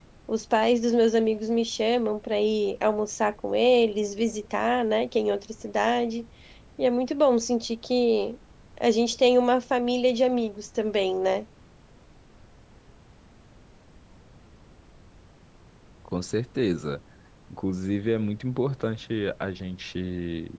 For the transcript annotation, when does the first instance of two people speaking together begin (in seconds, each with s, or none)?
none